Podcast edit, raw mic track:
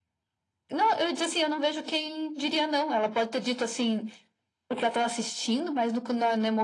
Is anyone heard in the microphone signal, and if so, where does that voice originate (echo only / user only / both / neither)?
echo only